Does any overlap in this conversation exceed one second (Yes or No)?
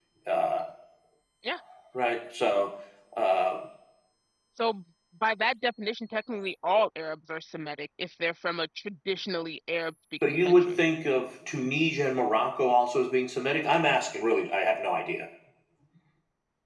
No